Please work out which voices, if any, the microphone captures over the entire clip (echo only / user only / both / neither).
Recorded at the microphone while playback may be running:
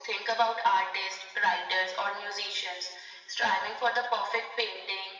echo only